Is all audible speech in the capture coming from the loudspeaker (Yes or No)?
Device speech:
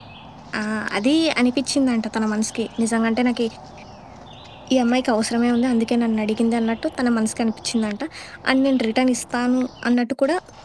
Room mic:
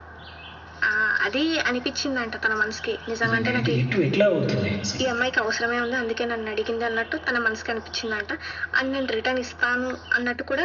No